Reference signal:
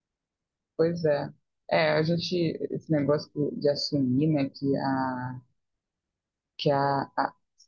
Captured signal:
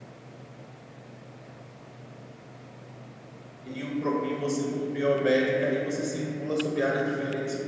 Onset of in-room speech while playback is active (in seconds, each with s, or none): 3.6 s